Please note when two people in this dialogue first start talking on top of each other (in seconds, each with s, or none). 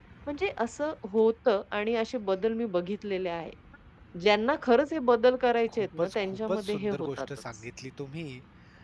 5.7 s